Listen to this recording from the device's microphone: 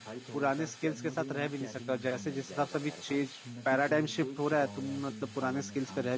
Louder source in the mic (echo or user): user